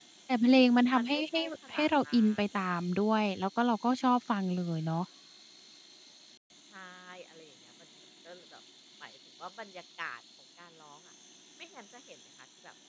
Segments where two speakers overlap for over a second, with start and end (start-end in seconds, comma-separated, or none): 0.9-2.4